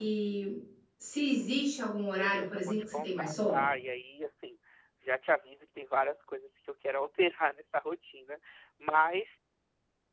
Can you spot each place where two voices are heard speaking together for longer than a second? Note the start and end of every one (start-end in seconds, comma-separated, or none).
2.2-3.7